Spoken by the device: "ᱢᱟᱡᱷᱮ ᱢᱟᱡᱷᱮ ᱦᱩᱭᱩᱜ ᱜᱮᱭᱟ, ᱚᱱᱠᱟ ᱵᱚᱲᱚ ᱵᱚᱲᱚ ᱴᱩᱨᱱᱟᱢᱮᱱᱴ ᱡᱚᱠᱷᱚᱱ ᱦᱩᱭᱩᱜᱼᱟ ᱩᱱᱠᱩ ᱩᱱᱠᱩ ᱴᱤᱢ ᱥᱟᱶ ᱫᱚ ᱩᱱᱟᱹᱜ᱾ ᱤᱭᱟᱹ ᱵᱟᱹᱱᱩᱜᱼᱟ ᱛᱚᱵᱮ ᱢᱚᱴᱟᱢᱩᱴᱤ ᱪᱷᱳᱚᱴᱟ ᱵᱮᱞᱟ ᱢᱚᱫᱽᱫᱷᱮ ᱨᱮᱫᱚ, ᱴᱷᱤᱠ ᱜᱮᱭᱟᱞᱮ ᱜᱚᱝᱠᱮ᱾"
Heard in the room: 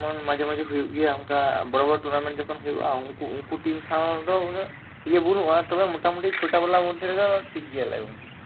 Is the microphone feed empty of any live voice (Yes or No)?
Yes